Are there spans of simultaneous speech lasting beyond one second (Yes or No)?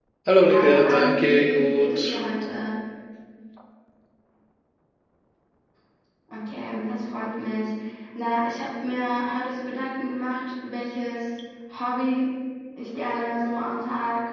Yes